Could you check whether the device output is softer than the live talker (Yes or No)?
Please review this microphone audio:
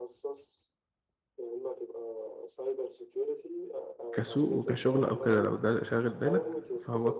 Yes